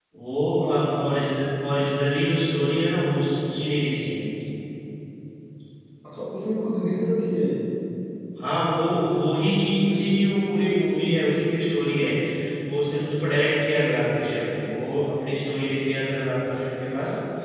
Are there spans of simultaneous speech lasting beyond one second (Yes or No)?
No